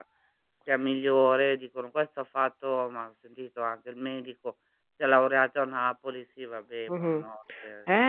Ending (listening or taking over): taking over